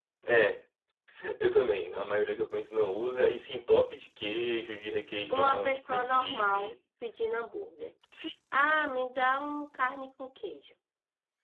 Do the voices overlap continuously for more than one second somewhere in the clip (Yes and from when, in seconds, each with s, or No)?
Yes, from 5.3 s